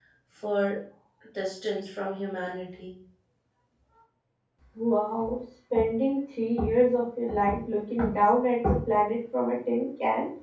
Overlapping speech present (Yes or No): No